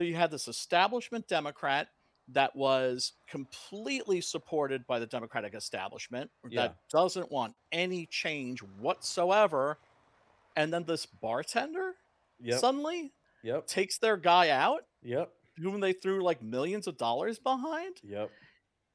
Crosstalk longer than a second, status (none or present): none